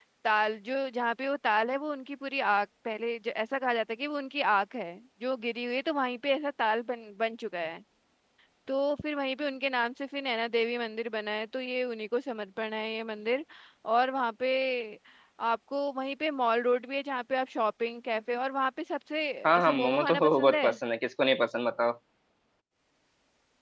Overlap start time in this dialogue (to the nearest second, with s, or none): 19 s